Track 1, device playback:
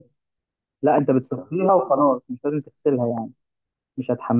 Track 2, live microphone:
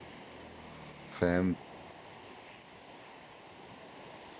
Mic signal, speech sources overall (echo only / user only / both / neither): user only